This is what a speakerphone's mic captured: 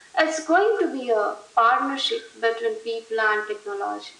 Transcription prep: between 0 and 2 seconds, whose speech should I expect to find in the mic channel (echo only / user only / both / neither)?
echo only